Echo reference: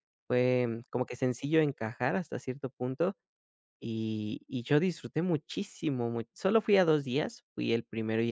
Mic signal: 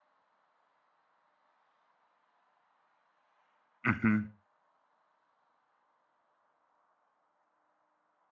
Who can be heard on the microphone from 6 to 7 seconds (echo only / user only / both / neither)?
neither